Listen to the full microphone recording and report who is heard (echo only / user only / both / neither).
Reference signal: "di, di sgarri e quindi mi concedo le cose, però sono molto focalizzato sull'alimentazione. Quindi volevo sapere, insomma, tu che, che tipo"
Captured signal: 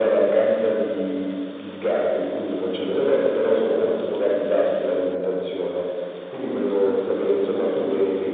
echo only